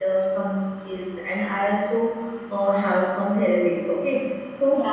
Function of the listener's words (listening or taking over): listening